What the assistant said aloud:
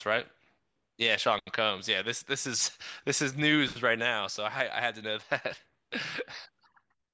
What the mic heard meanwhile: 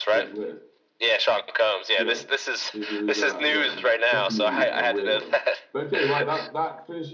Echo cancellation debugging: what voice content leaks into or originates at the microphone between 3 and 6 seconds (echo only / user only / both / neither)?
both